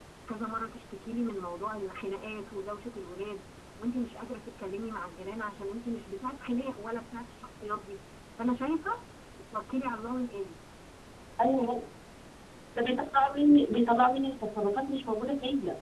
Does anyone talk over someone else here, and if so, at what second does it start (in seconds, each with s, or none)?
none